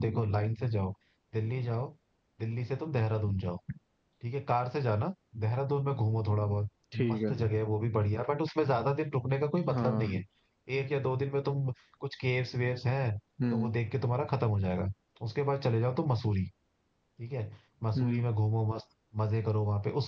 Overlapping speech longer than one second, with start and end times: none

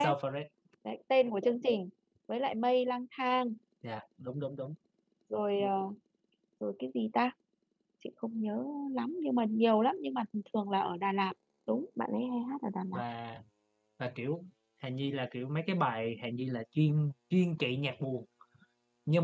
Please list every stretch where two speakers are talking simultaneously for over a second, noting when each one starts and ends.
none

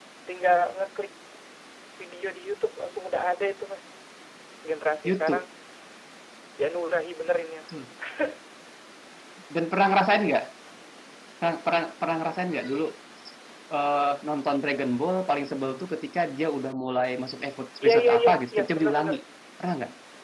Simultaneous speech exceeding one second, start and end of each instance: 17.8-19.2

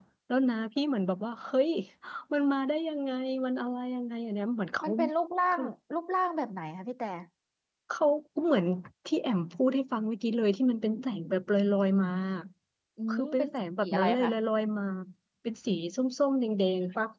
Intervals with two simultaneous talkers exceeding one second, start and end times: 13.1-14.3

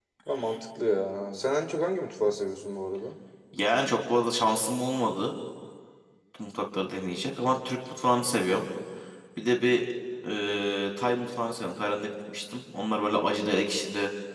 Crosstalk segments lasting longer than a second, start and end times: none

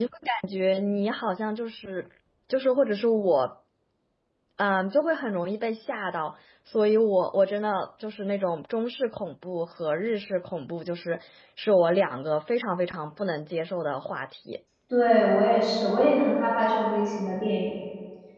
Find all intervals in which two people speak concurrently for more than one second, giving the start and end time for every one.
none

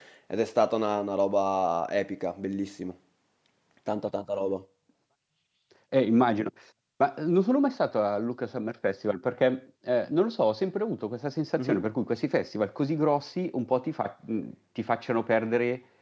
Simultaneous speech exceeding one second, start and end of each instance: none

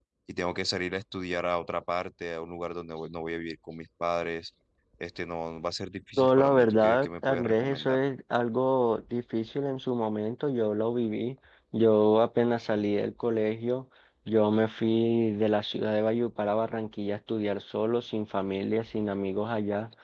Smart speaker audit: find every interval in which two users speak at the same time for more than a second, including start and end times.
6.2-8.0

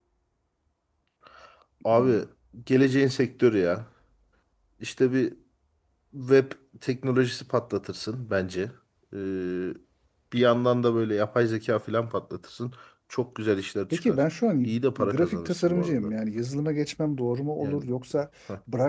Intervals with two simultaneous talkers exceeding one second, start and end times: 14.7-16.1

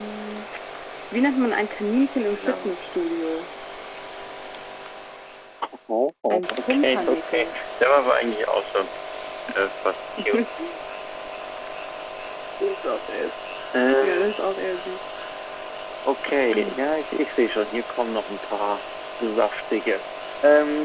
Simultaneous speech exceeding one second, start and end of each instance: 6.3-7.5

